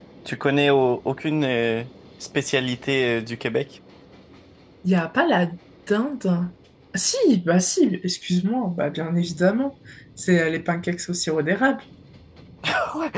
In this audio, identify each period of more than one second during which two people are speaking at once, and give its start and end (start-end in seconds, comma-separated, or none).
none